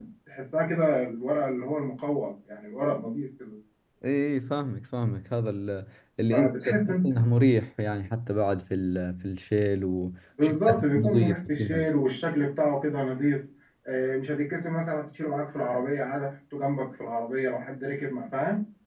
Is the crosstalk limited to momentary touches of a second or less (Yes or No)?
No